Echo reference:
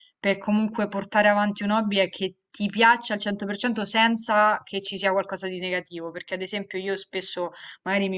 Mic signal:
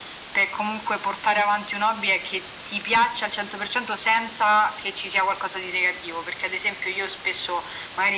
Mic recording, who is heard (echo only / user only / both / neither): echo only